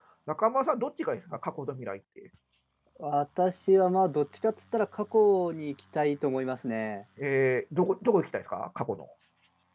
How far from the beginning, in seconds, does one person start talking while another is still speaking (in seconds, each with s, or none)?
none